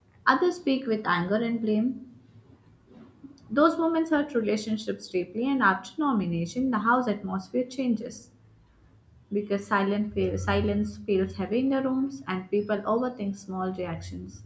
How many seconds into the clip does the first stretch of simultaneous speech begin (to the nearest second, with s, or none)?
none